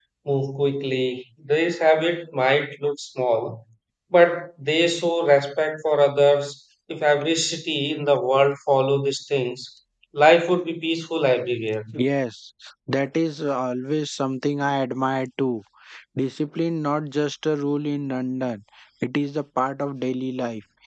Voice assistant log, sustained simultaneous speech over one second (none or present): none